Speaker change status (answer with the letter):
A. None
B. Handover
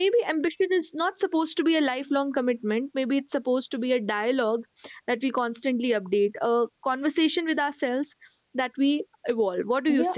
B